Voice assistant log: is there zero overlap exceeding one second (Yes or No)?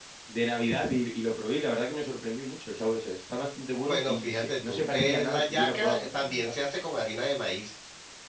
No